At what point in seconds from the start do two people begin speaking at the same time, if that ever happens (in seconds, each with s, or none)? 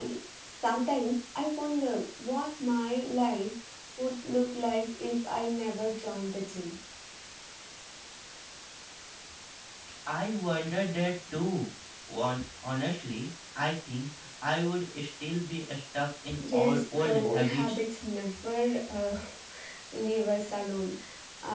16.5 s